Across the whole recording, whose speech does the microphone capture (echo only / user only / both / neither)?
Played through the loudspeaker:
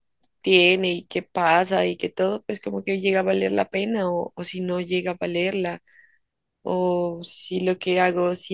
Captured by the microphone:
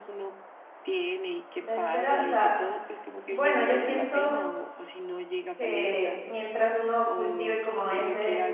both